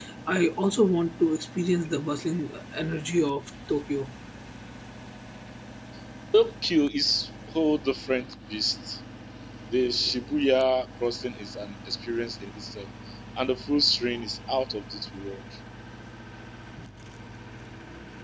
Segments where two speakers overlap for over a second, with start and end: none

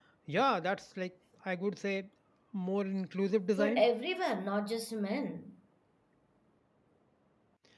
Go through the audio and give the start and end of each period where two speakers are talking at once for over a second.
none

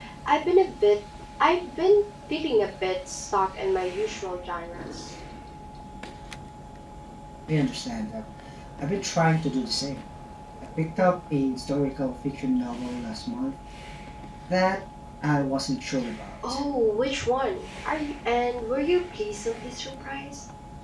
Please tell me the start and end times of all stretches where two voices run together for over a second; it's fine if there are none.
none

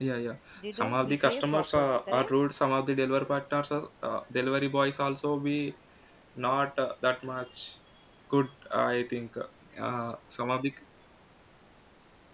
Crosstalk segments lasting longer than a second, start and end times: 0.6-2.3

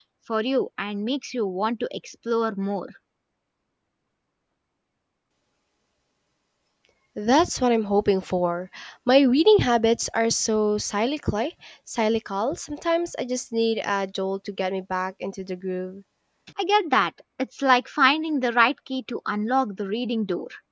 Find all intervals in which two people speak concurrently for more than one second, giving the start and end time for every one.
none

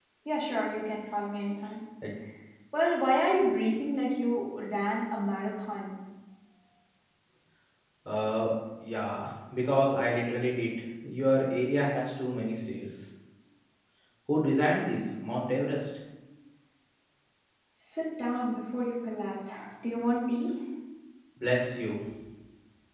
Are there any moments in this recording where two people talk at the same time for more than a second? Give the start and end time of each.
none

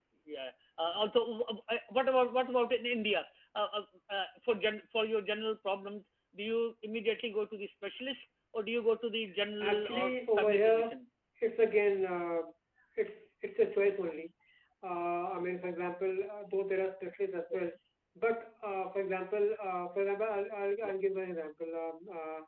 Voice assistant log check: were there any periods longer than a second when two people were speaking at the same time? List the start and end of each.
9.6-10.9

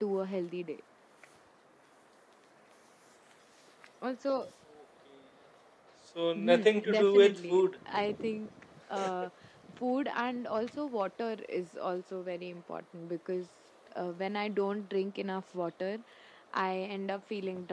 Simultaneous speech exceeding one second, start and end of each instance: 6.3-7.6

